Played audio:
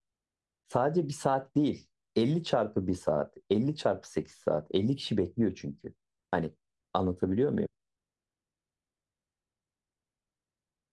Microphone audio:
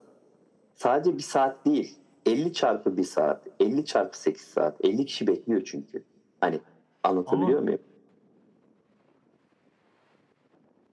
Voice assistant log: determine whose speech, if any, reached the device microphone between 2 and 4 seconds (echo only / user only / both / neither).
echo only